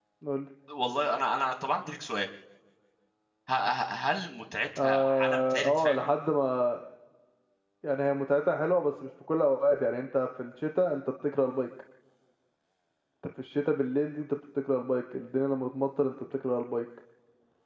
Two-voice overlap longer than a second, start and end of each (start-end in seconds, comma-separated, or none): 4.8-6.1